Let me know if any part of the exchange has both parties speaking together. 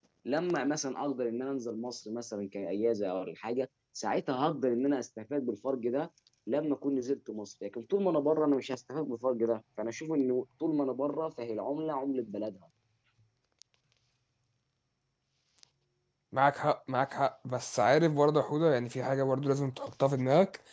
No

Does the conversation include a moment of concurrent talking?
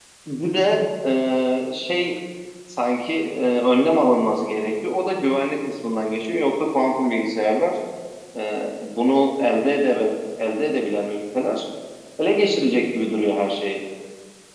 No

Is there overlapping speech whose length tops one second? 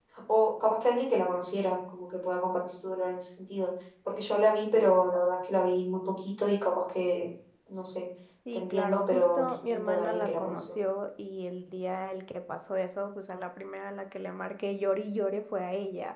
Yes, from 8.5 s

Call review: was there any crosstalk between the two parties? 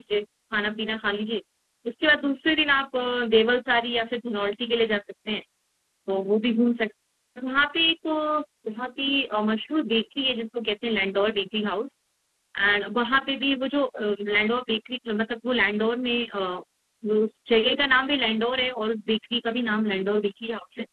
No

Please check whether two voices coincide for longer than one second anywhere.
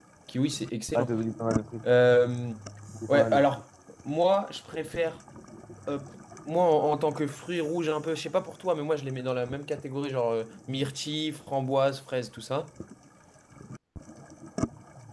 No

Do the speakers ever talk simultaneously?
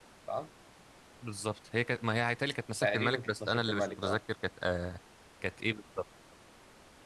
Yes, from 2.8 s

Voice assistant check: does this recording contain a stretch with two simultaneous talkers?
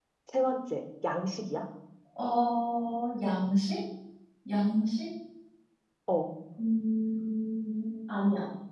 No

